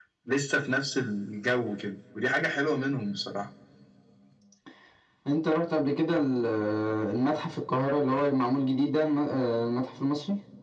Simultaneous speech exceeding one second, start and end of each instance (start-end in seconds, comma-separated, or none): none